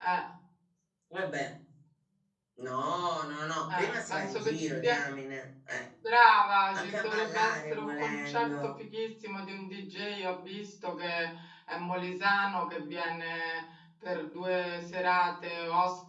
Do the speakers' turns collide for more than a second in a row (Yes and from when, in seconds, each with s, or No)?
Yes, from 3.7 s